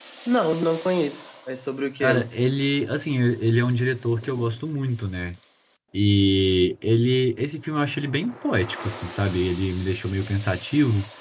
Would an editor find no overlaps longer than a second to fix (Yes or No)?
Yes